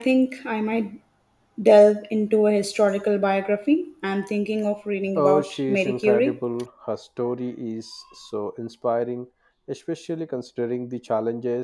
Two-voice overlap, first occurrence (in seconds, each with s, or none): 5.2 s